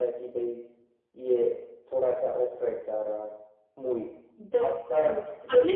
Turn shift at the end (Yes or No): Yes